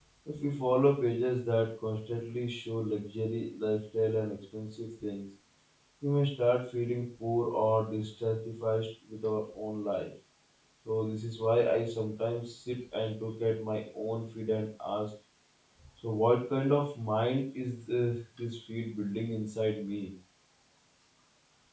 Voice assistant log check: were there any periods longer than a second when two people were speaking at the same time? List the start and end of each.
none

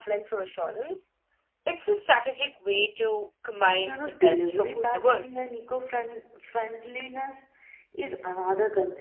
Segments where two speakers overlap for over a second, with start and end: 3.6-5.3

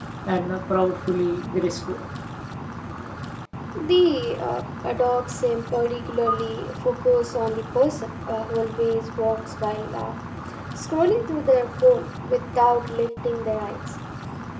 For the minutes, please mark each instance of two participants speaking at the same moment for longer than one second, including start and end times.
none

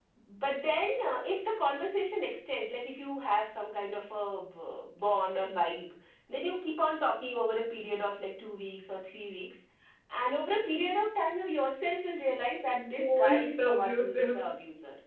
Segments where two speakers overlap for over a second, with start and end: 12.9-14.5

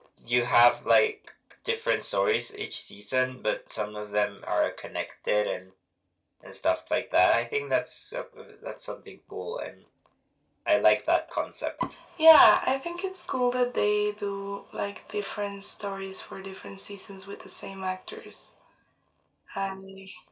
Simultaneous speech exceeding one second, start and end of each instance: none

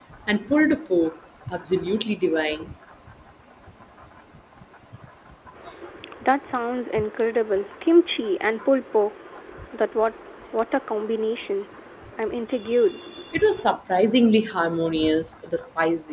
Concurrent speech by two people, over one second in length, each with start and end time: none

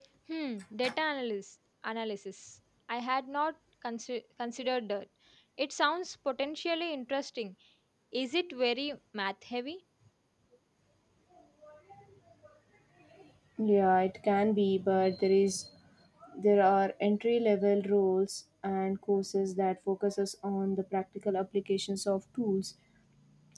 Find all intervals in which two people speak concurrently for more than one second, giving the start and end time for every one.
none

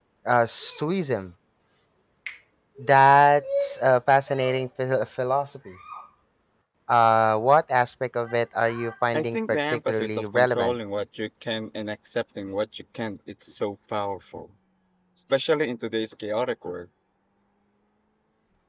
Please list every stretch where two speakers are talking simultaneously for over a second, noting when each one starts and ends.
9.1-10.8

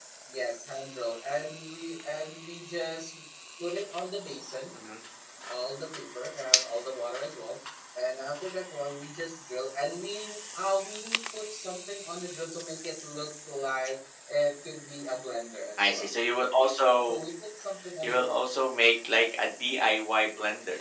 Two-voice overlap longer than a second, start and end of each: none

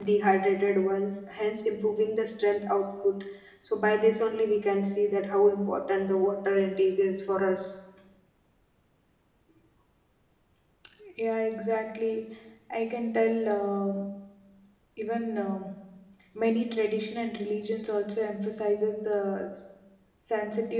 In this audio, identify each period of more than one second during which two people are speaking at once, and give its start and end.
none

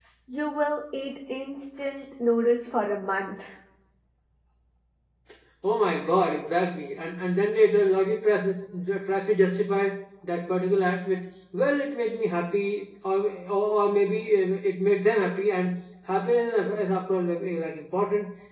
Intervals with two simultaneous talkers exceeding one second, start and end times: none

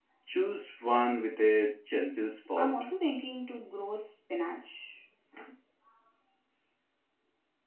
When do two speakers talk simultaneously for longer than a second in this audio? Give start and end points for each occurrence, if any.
none

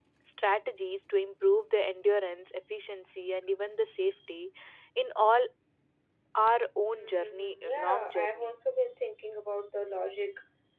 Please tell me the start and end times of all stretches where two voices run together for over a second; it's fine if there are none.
7.0-8.6

